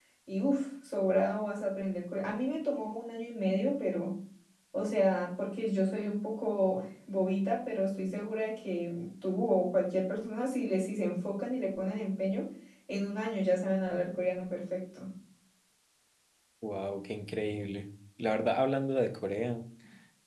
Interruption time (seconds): none

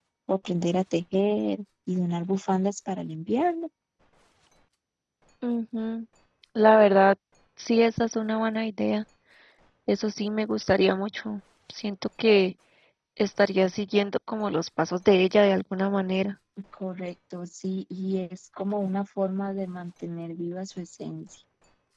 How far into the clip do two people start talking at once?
none

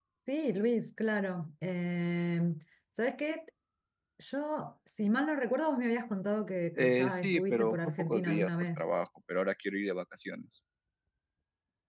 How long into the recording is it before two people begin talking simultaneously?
6.8 s

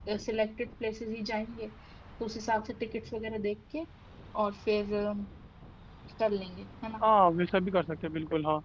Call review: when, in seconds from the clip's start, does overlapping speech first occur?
none

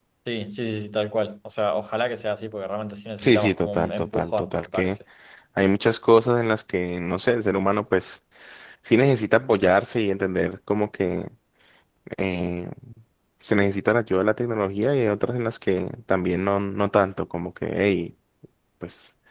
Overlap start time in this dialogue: 3.2 s

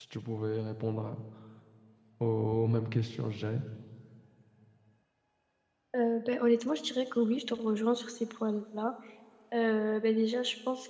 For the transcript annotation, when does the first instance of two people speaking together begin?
none

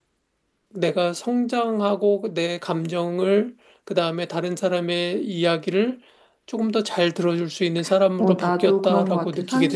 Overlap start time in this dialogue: 8.2 s

